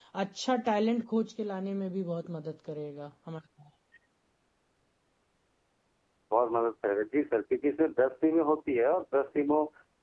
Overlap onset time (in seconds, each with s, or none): none